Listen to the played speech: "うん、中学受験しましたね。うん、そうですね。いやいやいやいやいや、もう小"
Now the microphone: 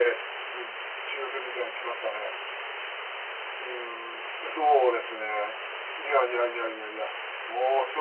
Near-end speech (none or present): none